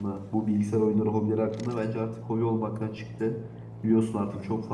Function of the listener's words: listening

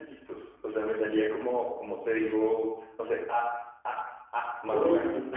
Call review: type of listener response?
taking over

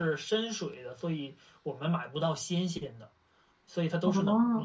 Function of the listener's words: listening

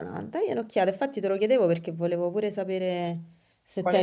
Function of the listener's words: taking over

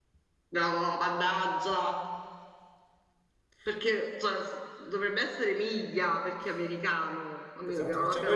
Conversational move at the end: taking over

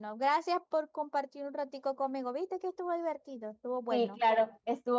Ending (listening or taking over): taking over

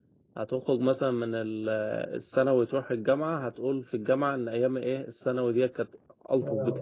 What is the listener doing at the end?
listening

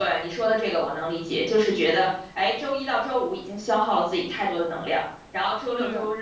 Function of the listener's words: listening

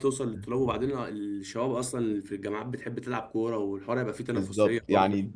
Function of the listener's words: taking over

